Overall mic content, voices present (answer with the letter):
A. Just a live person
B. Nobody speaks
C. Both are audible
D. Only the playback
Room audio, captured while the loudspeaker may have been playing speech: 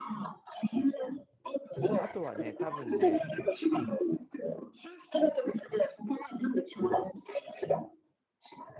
C